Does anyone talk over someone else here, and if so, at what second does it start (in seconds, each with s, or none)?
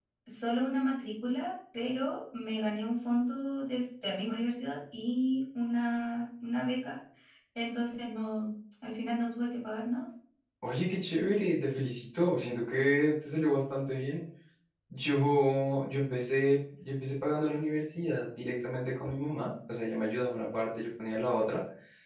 none